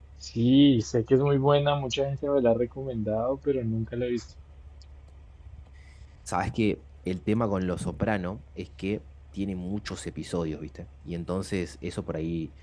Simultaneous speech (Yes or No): No